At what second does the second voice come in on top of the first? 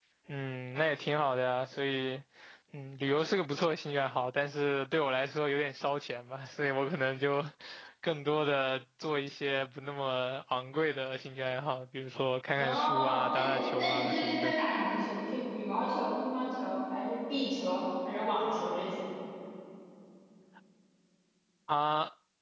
12.6 s

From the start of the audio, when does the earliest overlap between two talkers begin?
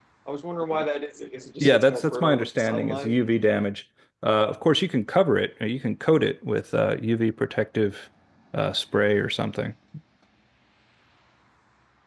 1.6 s

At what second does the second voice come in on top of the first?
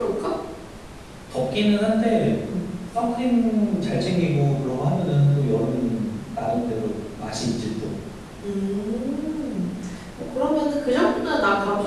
none

